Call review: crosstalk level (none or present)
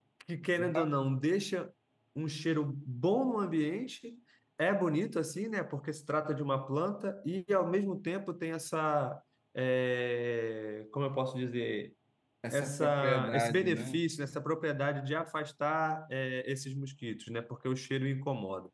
present